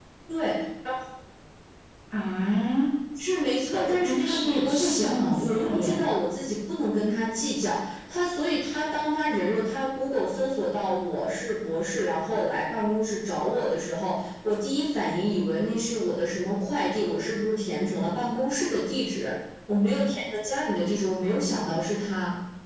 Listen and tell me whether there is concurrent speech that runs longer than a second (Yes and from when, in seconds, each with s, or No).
Yes, from 3.7 s